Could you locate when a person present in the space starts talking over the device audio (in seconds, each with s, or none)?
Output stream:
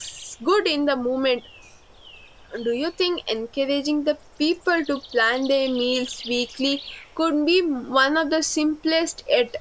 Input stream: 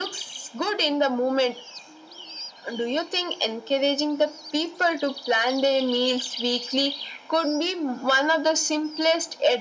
none